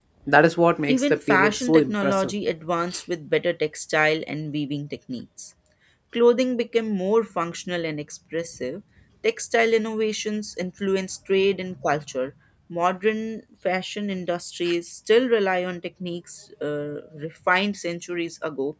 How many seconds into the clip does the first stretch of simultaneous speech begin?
0.9 s

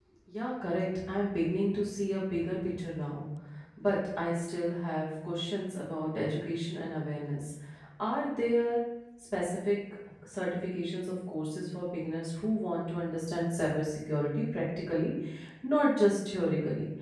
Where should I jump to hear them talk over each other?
none

